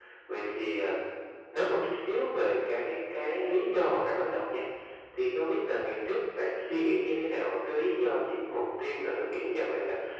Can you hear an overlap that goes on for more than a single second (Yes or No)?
No